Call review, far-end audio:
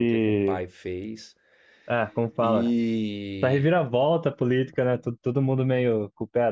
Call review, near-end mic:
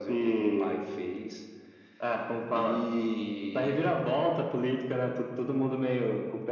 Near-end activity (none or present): none